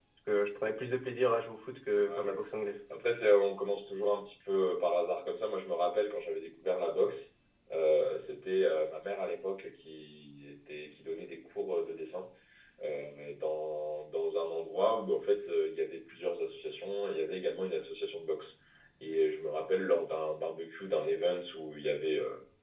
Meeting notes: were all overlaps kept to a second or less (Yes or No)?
Yes